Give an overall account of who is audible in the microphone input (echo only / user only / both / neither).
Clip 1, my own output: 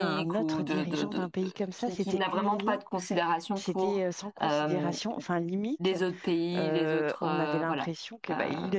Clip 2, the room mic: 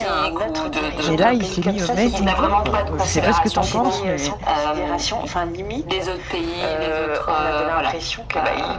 both